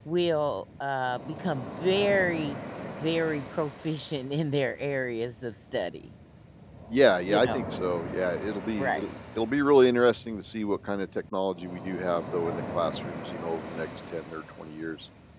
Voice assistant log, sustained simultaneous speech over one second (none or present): none